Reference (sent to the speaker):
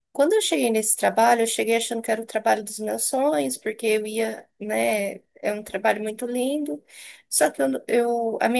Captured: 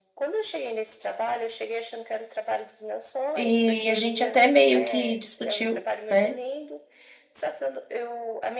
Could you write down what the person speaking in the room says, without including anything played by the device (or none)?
E a gente até meio que discutiu, né?